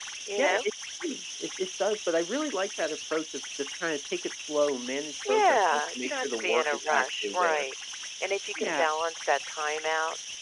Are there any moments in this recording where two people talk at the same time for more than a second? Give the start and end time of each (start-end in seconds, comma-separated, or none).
5.3-7.6